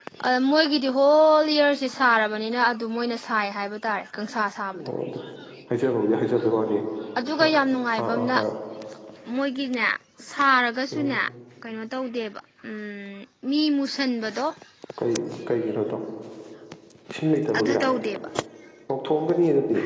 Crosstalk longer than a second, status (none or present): none